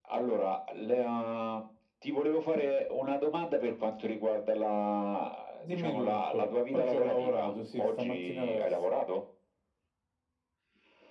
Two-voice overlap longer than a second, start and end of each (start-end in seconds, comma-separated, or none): 5.6-8.8